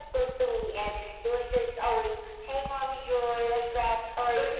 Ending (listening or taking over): taking over